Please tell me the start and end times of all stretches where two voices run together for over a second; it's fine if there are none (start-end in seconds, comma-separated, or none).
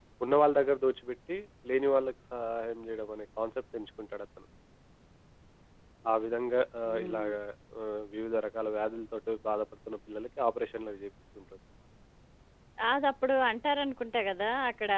none